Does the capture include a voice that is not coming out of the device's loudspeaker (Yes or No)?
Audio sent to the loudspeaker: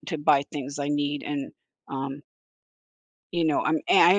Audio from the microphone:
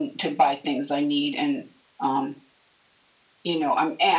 No